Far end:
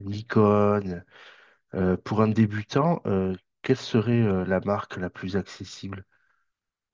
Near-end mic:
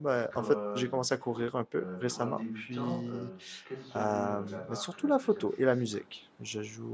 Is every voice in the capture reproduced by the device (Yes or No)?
No